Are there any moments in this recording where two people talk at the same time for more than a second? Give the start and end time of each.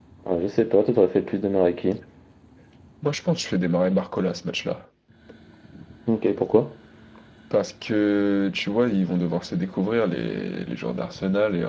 none

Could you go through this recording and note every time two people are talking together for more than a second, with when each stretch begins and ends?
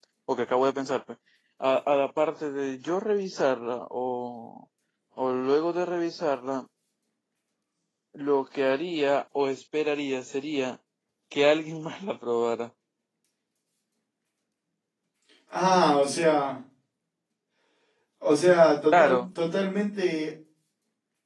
none

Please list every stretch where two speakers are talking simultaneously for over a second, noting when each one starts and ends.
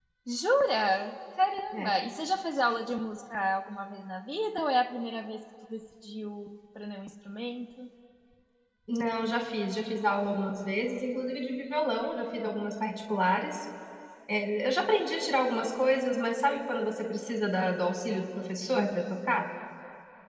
none

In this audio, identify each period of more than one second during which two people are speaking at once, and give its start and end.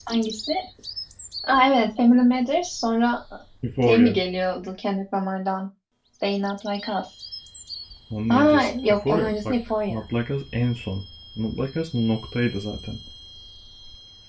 8.4-10.0

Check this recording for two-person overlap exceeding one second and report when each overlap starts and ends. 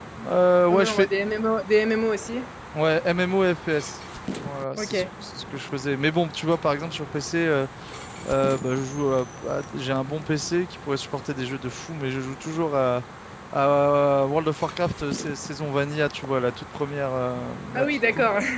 none

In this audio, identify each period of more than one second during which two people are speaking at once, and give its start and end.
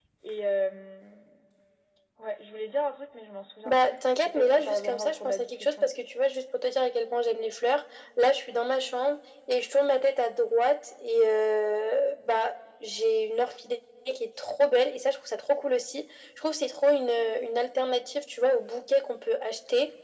3.6-5.9

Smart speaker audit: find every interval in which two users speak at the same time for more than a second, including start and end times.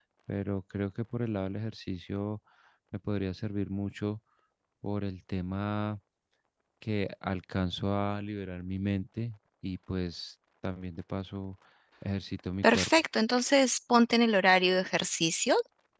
none

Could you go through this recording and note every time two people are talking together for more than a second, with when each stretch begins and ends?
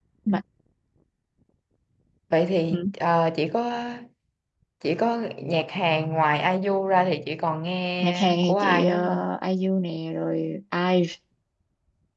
8.0-9.2

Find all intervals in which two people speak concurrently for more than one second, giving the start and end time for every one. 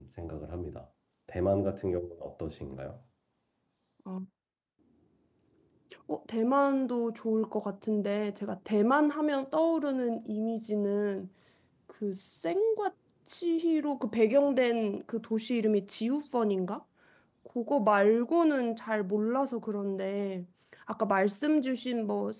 none

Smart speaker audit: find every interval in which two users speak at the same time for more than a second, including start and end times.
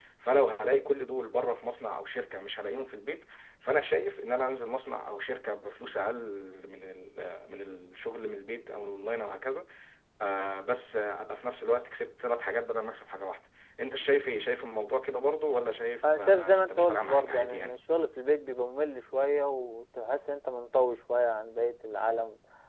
16.0-17.8

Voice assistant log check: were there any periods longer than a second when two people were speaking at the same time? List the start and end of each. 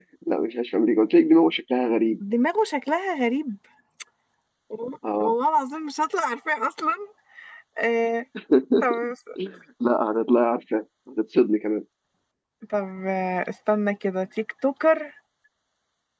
none

